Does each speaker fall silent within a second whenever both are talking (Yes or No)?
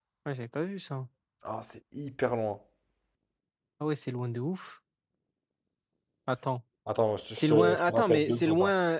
No